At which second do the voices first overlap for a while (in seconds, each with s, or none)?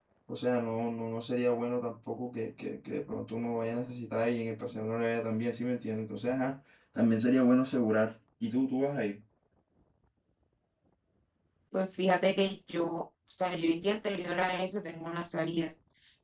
none